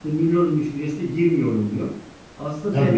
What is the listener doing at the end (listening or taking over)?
taking over